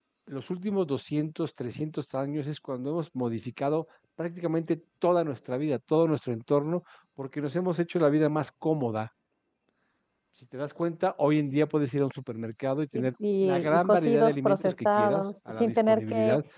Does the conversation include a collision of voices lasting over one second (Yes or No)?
Yes